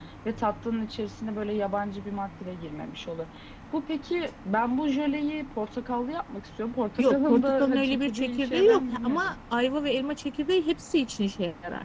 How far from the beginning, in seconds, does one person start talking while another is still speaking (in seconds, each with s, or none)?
7.0 s